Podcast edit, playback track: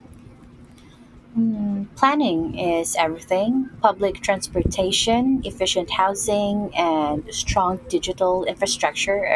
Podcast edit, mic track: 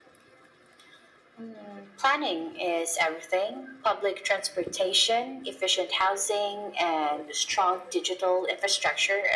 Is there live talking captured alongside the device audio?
No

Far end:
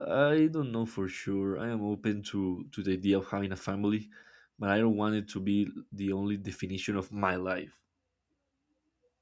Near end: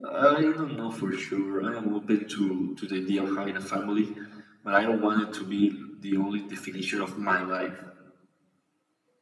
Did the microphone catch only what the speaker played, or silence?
Yes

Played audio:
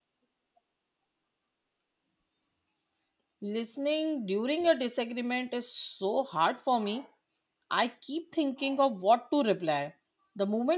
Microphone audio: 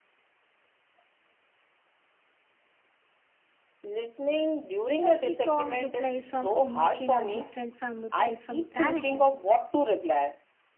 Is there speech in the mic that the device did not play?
Yes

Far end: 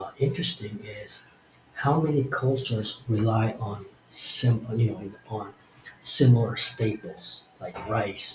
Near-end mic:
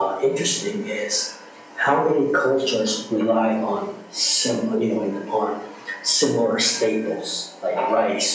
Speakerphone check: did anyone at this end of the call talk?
No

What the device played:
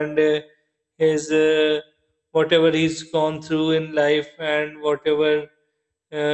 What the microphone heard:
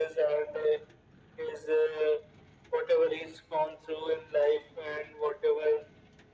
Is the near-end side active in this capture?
No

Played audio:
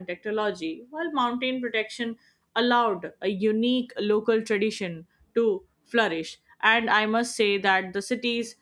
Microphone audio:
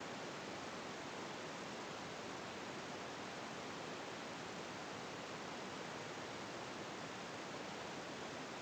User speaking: No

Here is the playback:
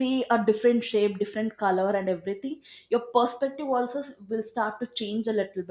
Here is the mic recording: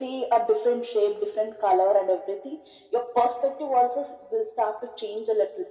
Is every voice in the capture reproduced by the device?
Yes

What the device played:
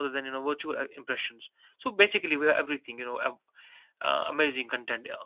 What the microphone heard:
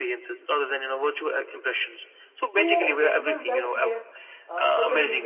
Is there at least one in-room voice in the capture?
Yes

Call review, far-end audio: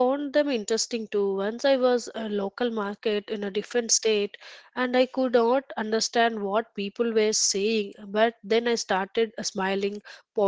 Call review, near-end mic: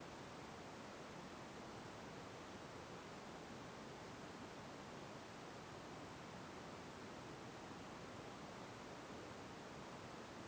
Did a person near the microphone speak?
No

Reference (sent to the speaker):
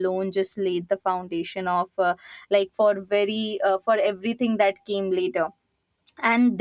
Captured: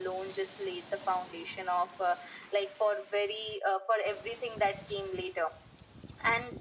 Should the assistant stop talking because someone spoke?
No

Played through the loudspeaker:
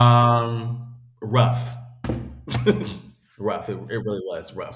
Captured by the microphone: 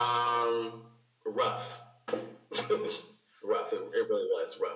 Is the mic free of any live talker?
Yes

